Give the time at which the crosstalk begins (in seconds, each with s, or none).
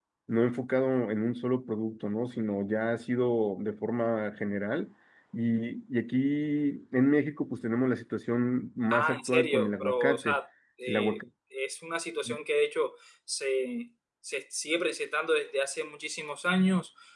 8.9 s